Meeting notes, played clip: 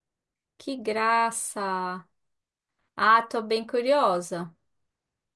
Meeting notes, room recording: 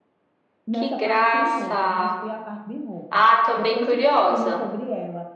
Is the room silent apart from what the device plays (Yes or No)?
No